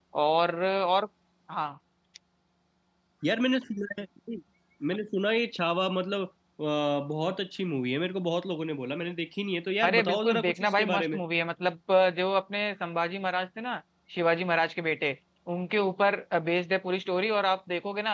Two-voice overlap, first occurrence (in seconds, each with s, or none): 9.8 s